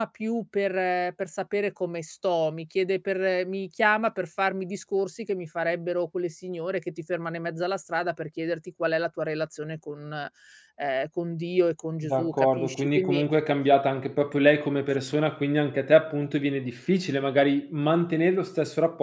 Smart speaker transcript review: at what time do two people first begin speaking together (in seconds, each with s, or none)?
12.0 s